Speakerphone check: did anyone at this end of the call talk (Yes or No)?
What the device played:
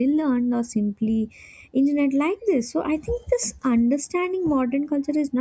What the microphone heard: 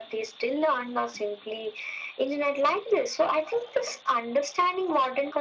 No